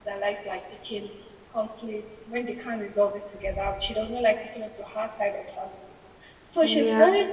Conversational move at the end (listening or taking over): listening